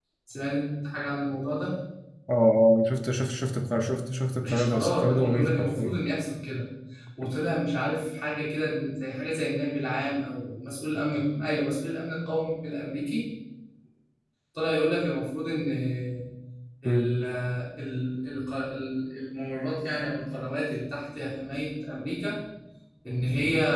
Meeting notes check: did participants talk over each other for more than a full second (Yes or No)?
Yes